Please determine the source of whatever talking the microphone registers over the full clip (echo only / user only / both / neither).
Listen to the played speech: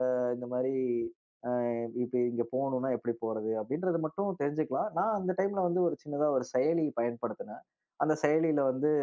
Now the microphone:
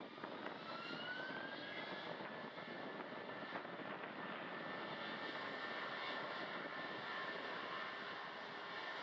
neither